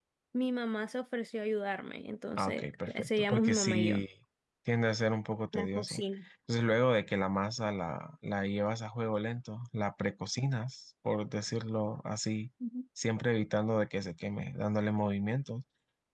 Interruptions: present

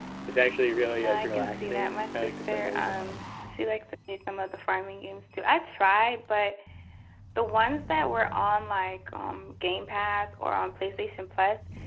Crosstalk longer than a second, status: present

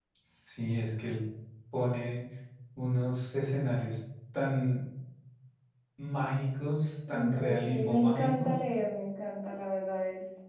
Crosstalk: present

